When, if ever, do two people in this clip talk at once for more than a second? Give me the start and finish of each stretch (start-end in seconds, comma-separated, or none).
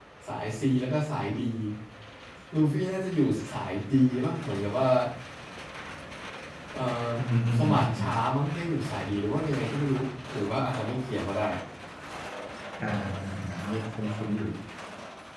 none